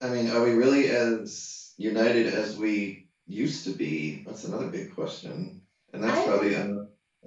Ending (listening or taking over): listening